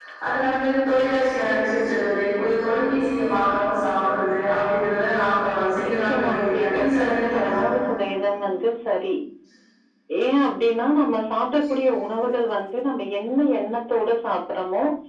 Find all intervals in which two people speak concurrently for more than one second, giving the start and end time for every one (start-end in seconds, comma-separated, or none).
5.8-7.6